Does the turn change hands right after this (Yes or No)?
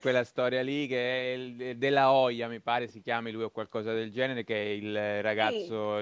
No